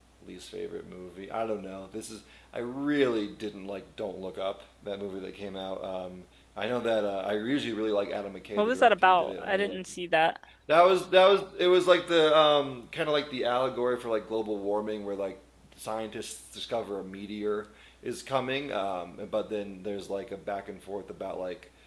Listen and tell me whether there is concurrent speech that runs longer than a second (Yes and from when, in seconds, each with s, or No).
Yes, from 8.6 s